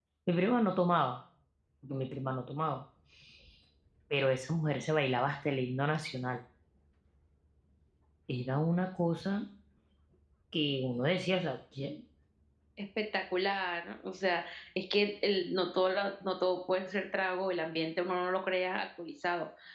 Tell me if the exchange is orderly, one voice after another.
Yes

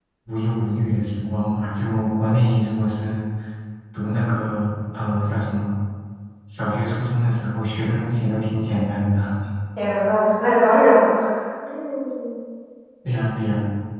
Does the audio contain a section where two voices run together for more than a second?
No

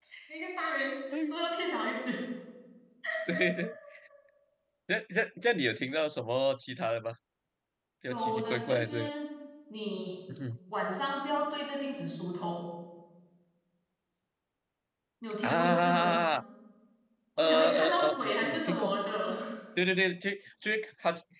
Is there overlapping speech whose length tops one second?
Yes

